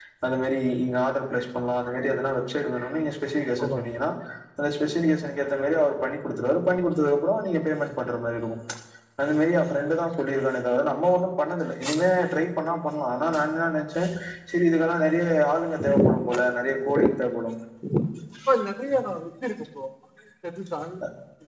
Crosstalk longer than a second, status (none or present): none